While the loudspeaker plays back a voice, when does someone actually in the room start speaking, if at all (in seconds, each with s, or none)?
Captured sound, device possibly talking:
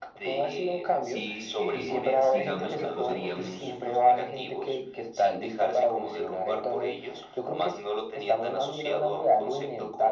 1.0 s